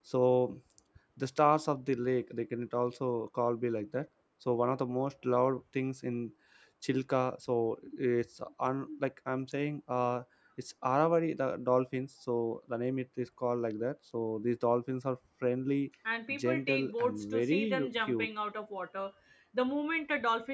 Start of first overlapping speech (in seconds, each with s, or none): 16.3 s